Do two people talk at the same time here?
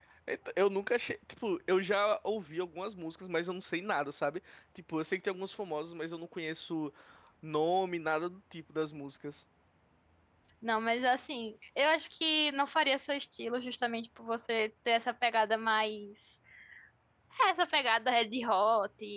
No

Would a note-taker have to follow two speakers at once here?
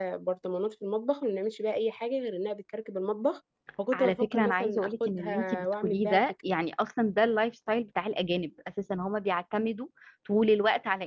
Yes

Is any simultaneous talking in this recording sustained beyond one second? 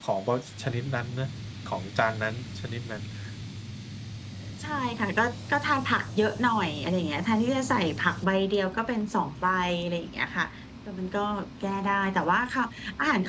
No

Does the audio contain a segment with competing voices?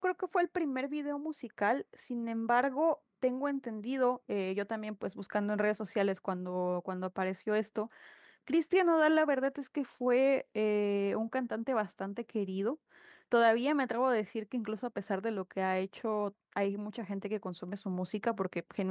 No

